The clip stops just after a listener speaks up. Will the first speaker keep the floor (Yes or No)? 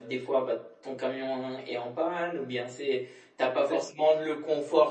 Yes